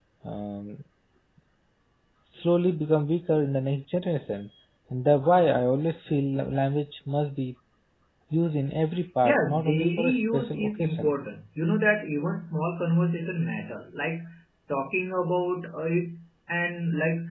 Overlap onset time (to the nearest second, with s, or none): 9 s